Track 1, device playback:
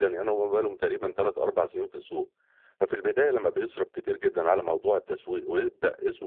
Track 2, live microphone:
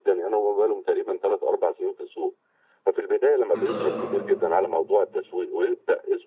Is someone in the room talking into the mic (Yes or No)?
Yes